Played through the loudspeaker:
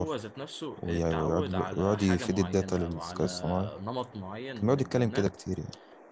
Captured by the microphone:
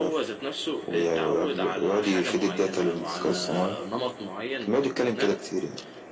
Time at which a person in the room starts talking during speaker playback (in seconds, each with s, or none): none